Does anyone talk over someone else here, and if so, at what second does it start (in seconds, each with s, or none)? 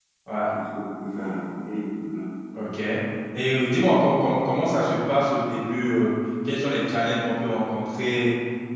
none